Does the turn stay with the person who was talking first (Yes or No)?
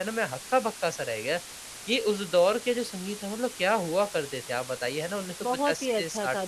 No